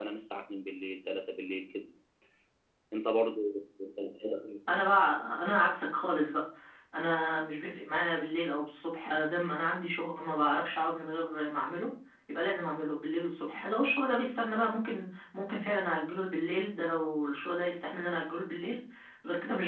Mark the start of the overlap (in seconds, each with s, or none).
none